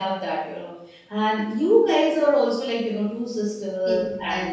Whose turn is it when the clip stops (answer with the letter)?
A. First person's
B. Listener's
B